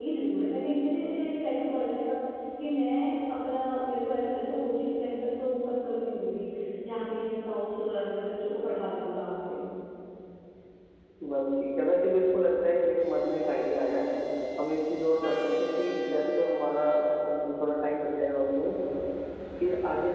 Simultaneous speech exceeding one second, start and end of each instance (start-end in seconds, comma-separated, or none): none